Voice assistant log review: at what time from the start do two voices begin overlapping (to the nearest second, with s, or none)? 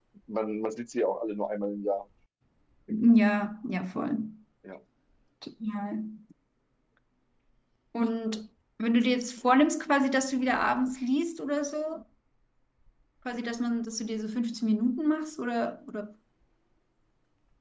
none